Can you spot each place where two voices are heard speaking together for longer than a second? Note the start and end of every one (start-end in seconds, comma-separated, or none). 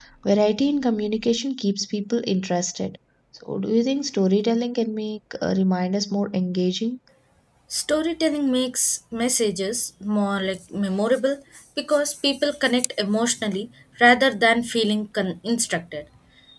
none